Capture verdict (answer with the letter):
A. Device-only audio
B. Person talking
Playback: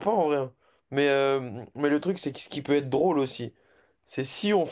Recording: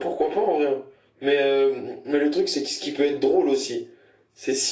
A